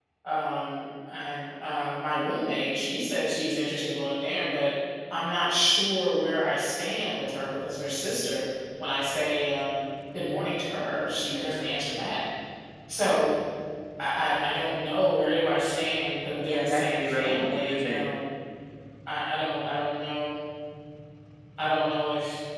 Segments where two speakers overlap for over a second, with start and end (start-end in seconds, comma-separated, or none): 16.4-18.1